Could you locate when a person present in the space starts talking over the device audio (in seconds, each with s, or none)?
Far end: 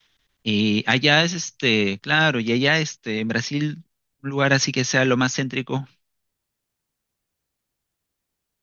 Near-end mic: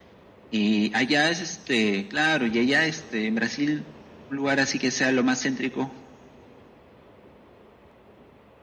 none